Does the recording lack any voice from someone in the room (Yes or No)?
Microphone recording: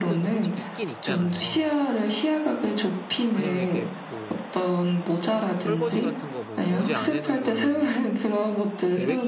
No